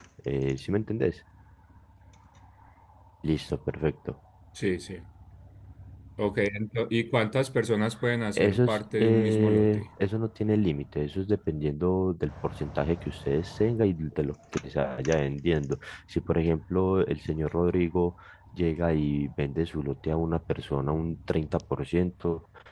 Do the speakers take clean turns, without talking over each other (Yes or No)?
No